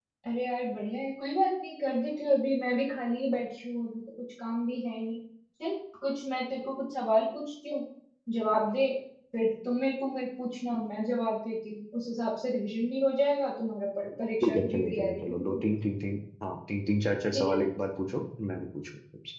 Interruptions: present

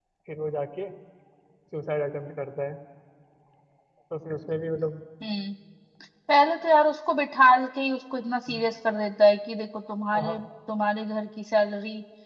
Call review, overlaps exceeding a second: none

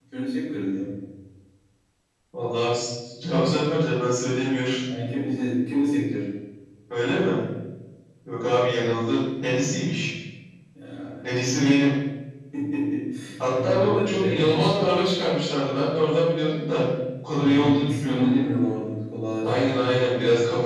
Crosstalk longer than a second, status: present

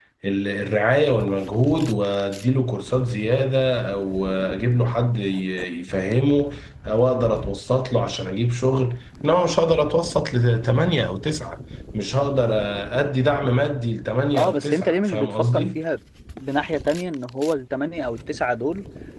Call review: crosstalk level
present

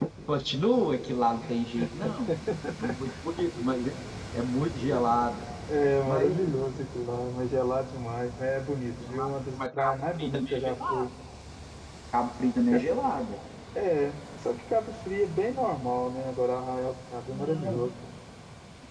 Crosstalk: present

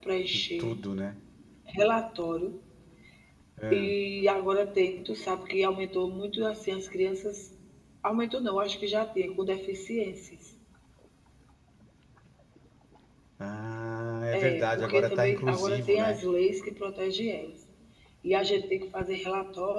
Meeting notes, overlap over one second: present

